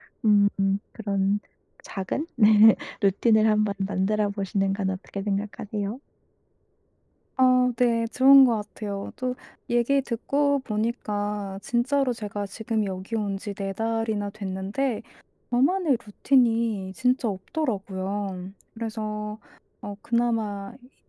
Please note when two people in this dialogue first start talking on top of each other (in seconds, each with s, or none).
none